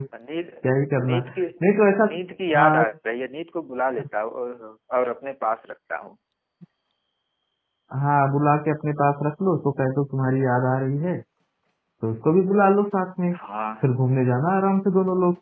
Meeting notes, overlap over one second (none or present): none